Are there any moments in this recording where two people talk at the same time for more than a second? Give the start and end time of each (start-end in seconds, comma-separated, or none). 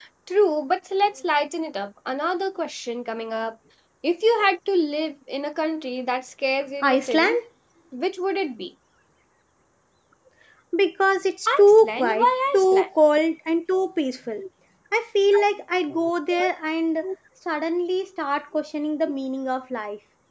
11.5-12.9